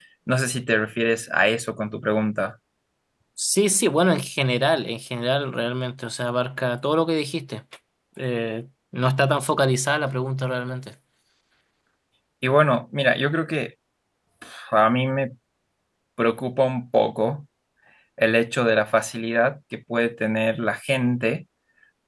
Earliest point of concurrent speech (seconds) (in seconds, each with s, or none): none